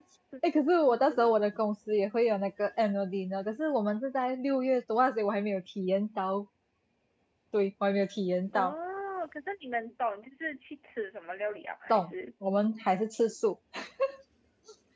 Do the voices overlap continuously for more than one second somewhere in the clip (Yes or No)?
No